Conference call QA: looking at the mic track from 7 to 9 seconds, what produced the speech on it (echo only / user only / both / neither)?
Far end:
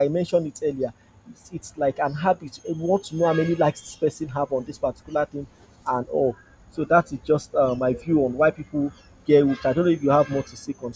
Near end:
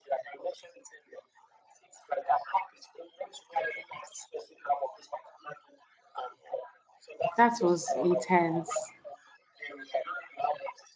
both